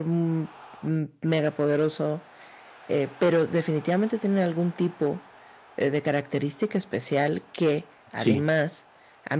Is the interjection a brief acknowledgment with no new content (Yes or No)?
Yes